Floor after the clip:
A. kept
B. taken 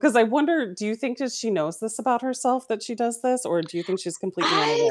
B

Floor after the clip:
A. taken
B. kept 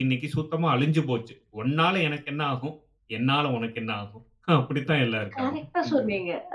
A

